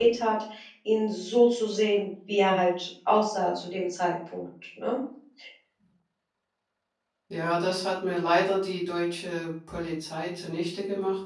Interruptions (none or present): none